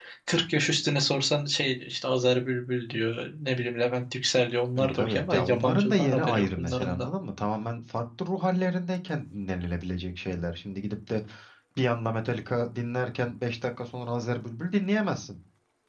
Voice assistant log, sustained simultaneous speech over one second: present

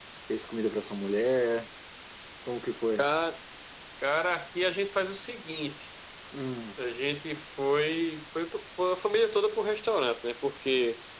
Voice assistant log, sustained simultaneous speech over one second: none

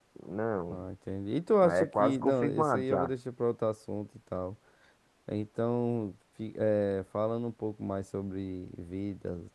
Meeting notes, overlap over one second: present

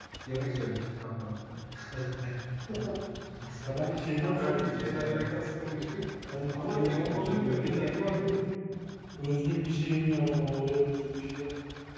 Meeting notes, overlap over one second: present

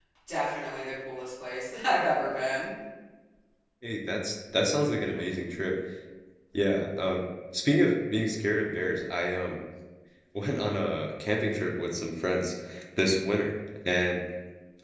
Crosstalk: none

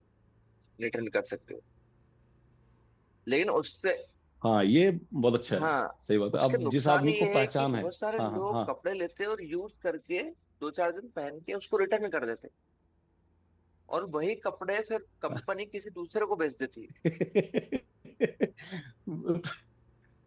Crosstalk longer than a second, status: present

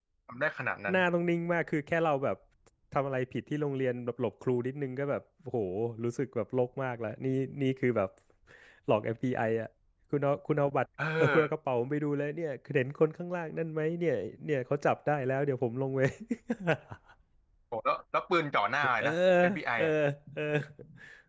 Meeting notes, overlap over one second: none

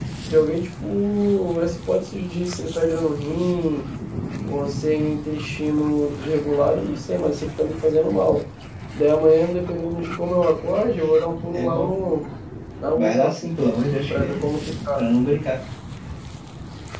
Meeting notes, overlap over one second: none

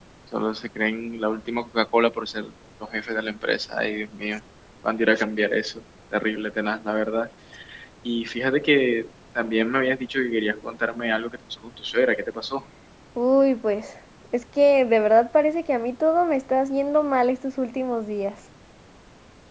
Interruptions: none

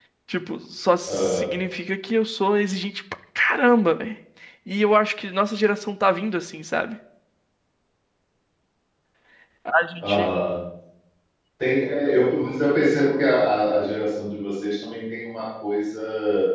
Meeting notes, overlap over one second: none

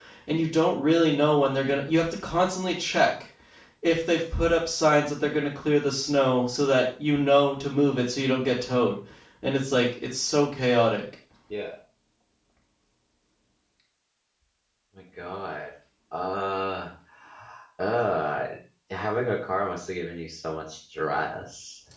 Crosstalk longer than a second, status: none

